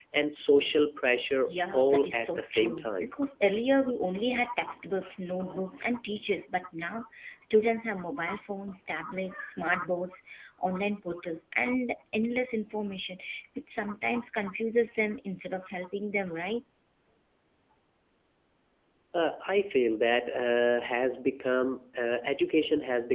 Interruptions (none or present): present